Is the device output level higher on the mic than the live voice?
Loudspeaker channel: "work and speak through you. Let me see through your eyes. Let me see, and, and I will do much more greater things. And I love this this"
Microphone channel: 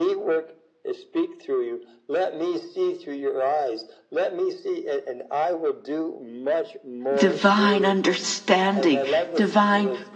No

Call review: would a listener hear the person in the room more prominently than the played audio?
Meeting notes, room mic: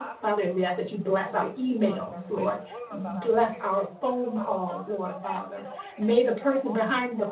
Yes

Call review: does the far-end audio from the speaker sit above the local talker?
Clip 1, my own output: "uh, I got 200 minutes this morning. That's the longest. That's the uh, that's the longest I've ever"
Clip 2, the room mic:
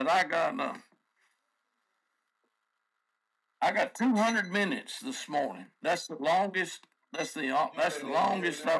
Yes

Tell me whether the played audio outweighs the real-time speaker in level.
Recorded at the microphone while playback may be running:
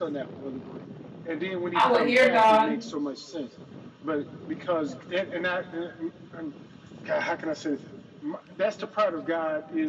No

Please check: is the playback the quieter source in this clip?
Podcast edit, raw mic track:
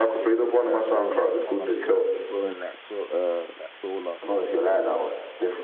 No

